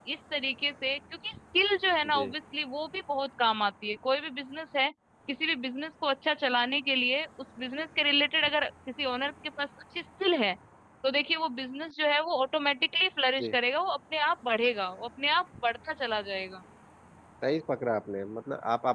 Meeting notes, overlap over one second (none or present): none